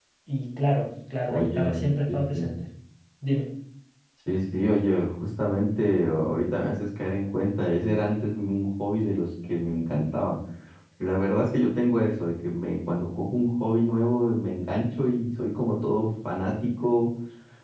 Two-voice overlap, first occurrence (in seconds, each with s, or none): 1.3 s